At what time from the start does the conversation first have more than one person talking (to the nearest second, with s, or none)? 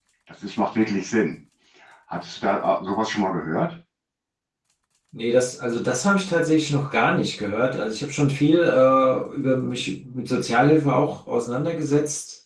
none